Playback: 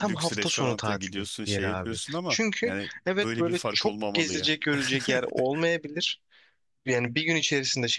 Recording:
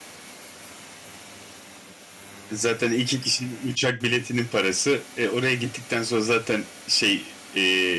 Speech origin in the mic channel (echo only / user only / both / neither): user only